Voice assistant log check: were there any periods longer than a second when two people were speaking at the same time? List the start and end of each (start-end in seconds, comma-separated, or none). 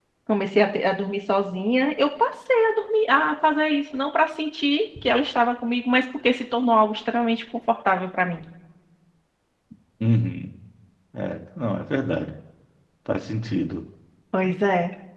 none